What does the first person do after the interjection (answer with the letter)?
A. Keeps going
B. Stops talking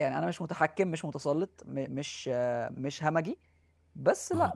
A